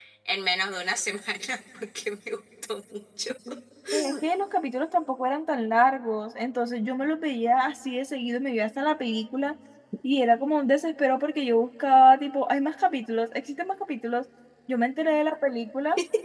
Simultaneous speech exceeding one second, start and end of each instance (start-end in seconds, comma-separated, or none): none